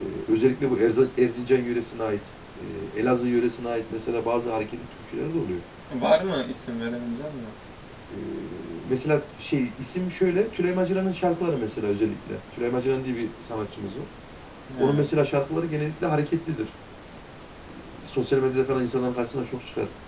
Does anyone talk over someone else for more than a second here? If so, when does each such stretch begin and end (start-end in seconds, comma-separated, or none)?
none